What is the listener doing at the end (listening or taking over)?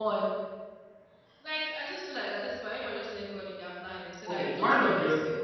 taking over